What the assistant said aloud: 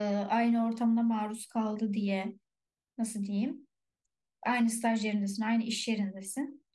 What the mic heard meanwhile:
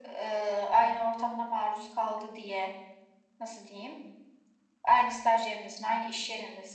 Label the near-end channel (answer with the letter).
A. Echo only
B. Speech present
A